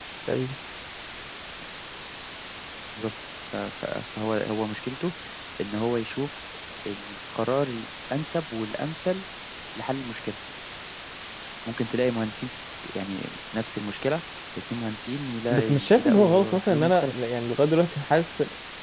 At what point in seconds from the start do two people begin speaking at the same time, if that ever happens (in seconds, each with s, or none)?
15.5 s